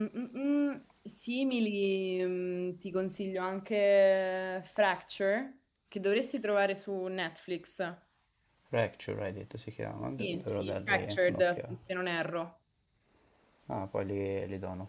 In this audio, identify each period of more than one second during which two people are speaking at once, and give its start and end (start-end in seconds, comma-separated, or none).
10.2-11.8